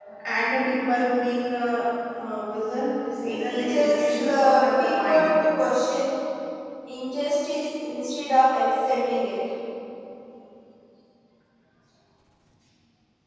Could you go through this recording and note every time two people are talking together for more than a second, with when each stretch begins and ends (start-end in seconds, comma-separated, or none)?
3.2-5.3